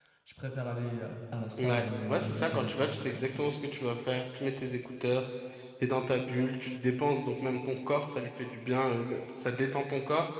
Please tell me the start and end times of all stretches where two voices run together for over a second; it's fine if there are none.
1.6-3.5

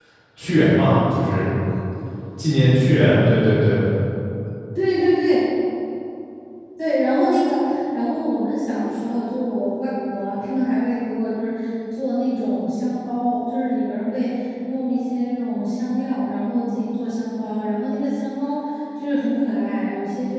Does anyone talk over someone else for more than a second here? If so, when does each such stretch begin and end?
none

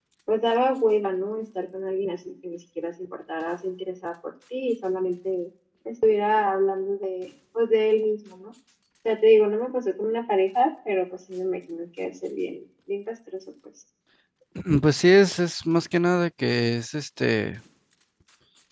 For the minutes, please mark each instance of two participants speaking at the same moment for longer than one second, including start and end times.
none

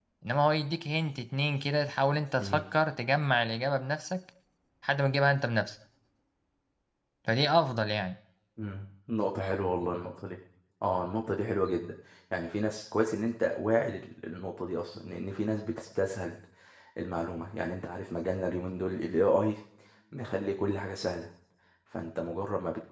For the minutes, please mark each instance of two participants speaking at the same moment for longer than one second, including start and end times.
none

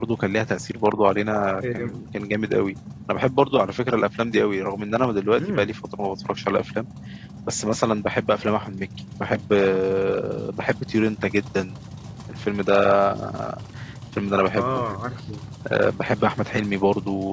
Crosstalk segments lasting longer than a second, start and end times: none

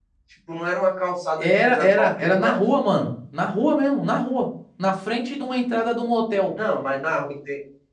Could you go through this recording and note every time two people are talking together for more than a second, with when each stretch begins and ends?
1.4-2.6

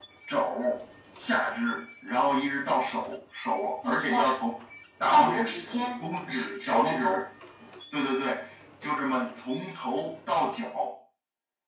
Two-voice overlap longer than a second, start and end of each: 5.1-7.2

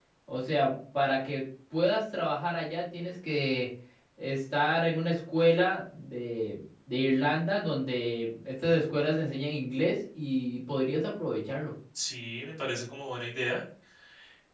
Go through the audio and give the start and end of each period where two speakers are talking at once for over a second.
none

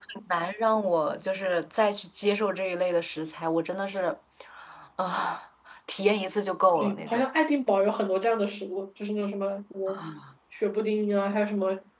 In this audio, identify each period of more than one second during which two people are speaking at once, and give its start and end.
none

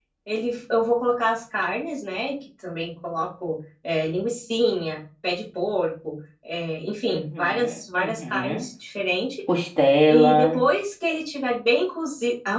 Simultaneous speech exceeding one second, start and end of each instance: 7.1-8.7

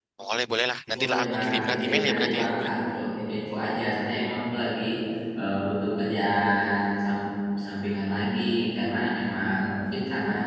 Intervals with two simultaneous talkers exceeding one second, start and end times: 1.0-2.7

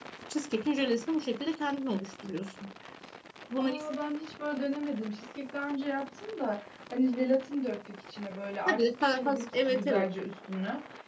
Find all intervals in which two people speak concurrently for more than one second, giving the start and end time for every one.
8.7-10.1

